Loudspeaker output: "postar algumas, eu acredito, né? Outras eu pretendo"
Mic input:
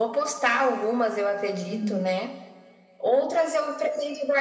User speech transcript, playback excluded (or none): Hum,